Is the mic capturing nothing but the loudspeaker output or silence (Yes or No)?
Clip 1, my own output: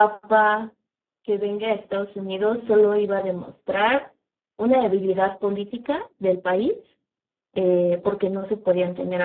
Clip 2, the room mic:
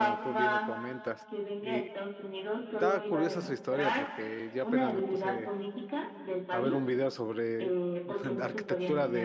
No